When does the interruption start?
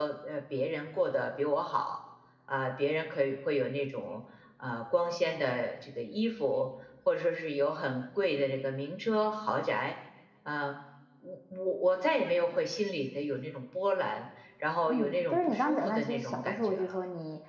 14.9 s

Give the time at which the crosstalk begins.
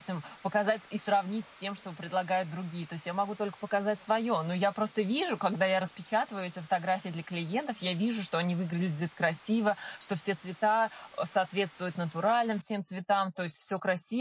none

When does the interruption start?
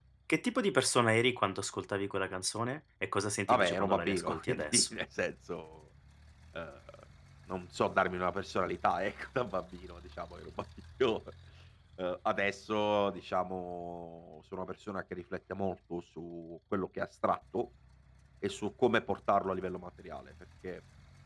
3.5 s

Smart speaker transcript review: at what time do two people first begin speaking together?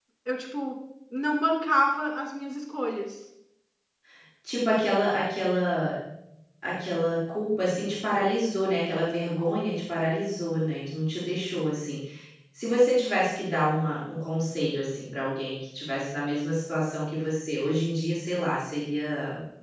none

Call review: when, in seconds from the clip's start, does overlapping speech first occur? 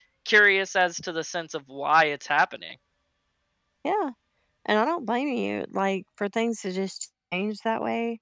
none

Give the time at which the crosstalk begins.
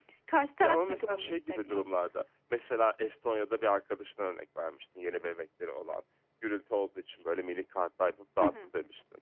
0.6 s

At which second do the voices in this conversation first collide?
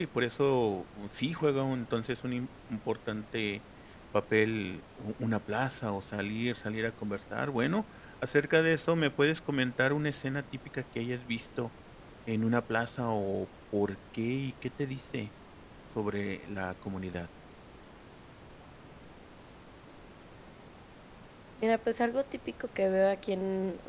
none

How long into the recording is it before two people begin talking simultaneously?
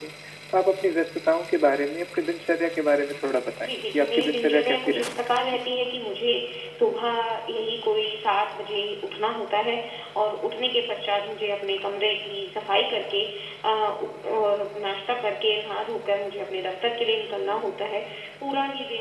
3.6 s

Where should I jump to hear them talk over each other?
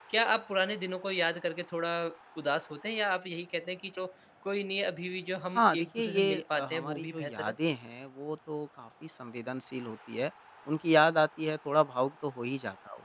5.5 s

